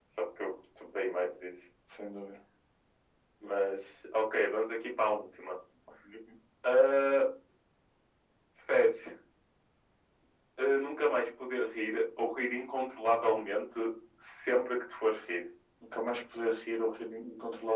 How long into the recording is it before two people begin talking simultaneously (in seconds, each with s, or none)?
none